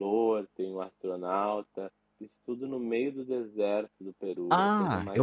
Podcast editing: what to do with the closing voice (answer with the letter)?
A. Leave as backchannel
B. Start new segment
B